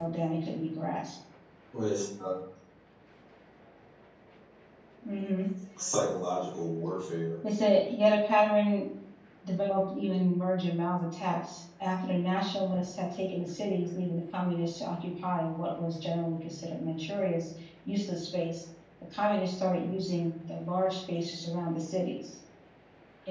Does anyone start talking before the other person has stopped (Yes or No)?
No